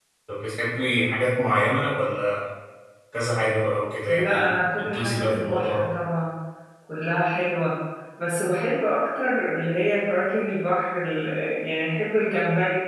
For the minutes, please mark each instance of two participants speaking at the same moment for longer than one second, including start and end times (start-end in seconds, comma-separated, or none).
4.1-5.8